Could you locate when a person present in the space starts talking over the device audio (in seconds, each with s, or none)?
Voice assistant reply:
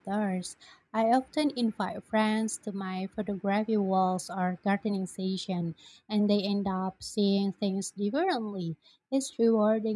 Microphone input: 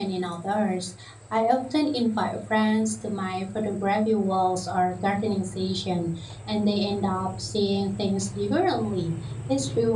none